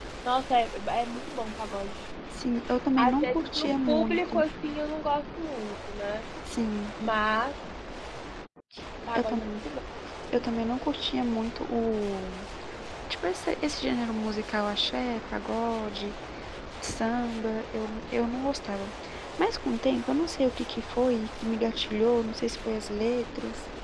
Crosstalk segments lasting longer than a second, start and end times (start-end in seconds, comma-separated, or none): 3.0-4.4